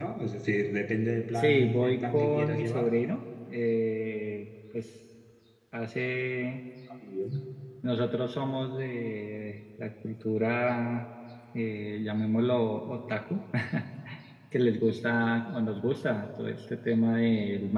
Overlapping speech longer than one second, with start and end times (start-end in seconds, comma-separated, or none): 1.3-3.0